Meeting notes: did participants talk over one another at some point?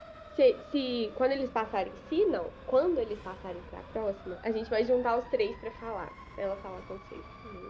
No

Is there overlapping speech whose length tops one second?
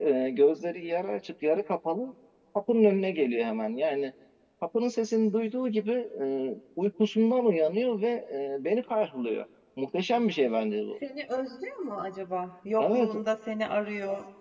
No

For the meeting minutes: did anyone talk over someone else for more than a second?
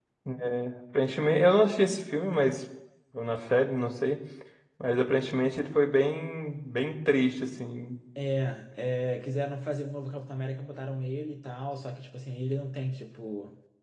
No

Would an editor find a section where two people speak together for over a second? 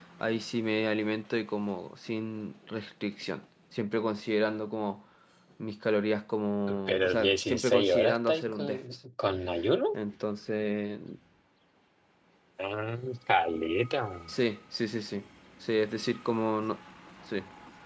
Yes, from 6.7 s

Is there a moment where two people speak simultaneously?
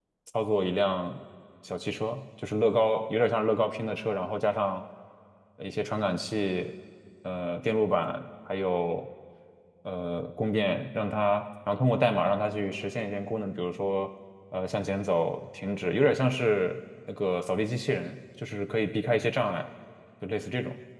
No

